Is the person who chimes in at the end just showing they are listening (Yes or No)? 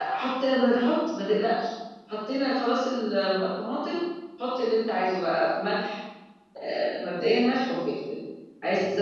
Yes